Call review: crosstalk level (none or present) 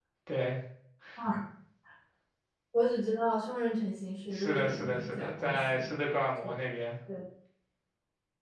present